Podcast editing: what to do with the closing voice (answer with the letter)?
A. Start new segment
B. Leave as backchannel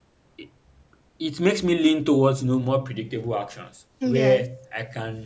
B